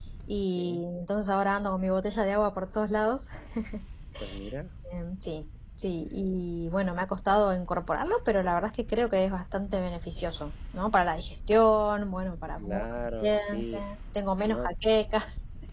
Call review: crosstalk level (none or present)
present